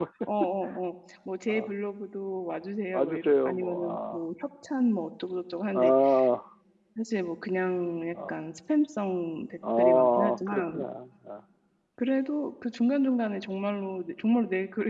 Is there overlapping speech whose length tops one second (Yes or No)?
Yes